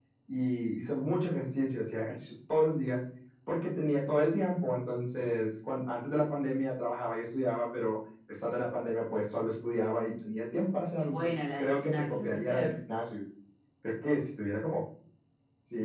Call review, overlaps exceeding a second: present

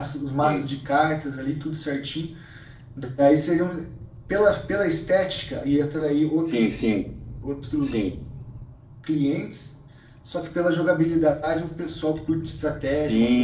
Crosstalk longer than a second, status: none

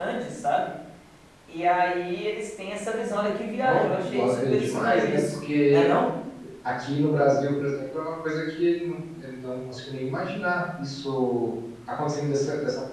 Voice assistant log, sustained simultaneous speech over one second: present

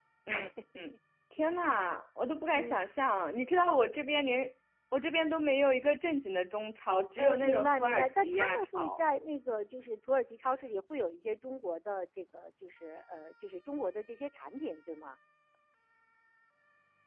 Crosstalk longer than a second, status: present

